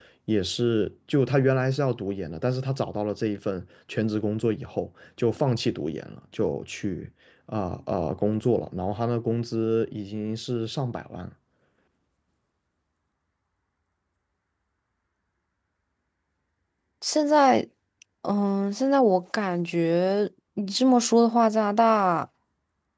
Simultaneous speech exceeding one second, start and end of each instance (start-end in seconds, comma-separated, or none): none